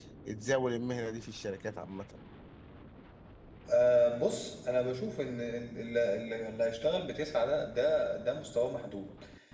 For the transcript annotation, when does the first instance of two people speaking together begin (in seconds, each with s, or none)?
none